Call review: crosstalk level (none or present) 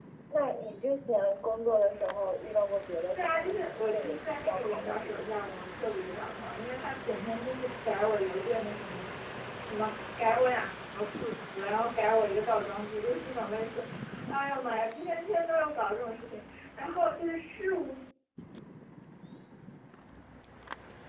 present